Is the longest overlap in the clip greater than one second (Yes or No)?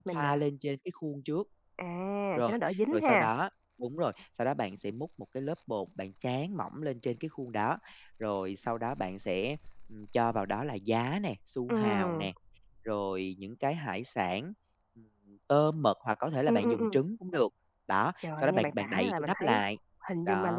Yes